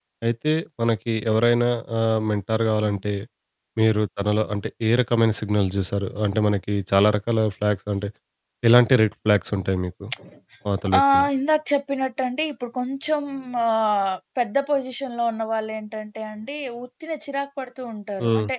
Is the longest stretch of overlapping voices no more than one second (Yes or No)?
Yes